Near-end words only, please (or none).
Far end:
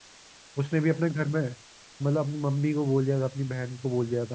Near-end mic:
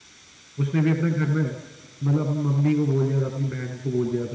none